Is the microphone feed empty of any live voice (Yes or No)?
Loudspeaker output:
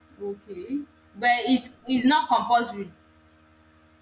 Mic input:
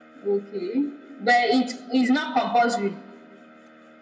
Yes